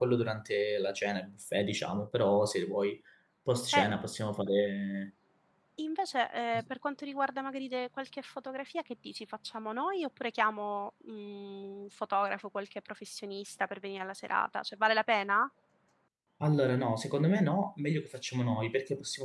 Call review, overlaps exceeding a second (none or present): none